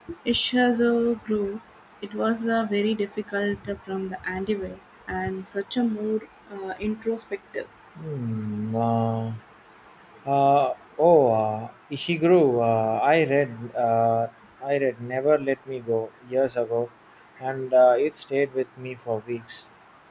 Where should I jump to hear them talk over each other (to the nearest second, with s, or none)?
none